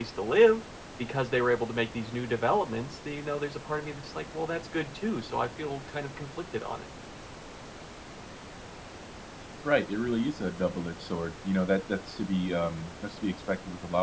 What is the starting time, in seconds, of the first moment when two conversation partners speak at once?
none

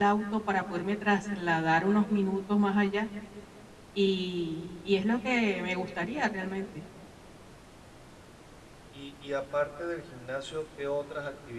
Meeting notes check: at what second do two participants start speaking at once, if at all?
none

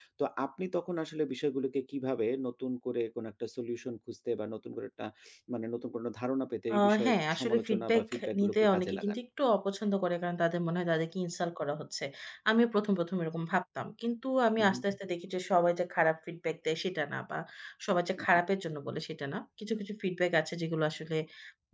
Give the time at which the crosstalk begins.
6.7 s

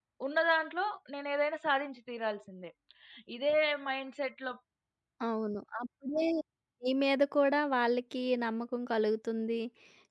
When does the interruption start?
none

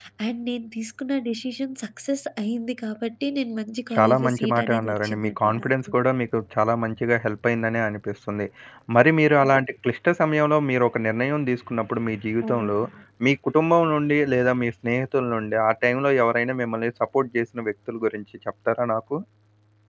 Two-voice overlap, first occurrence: 3.9 s

